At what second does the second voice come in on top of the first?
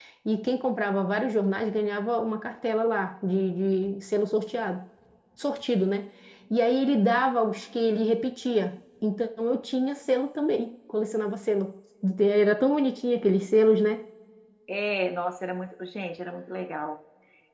none

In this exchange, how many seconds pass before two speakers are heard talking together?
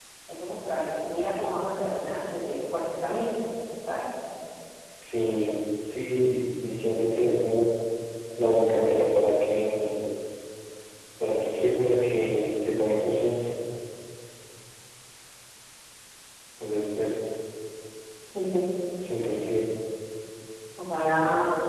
none

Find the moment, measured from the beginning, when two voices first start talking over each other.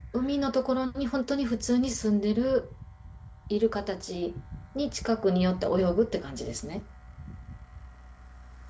none

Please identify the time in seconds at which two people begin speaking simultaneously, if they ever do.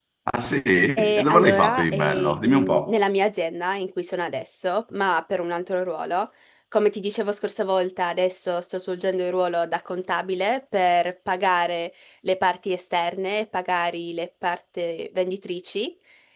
1 s

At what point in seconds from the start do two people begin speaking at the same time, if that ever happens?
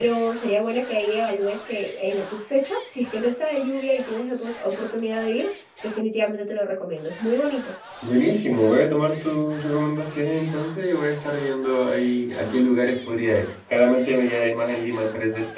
none

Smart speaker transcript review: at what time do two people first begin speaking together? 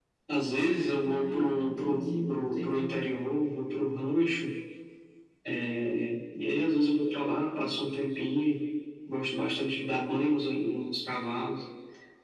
1 s

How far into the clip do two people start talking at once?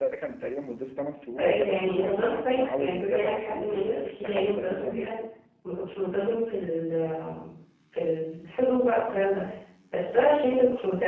1 s

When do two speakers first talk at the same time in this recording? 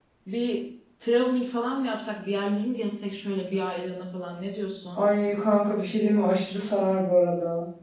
none

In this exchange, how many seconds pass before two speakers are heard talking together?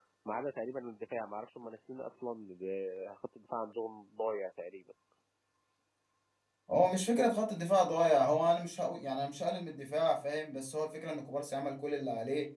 none

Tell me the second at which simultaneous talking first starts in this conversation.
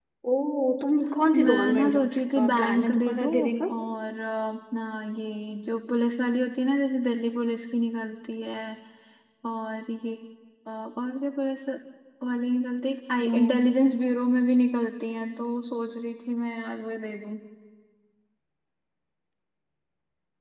1 s

